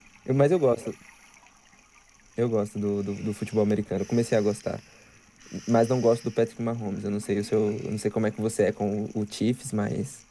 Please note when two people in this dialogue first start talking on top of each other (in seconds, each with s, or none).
none